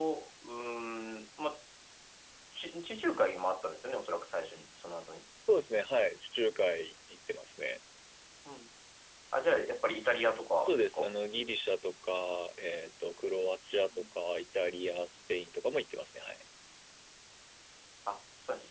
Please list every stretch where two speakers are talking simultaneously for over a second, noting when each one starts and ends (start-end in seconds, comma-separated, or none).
none